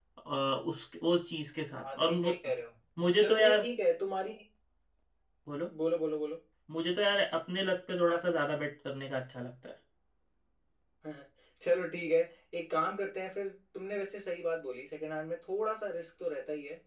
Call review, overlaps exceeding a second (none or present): none